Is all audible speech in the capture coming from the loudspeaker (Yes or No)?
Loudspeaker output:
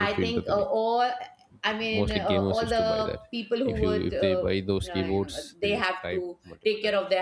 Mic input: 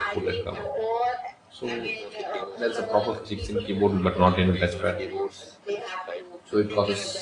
No